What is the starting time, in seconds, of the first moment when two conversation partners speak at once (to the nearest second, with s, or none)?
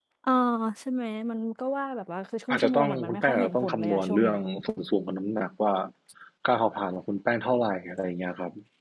3 s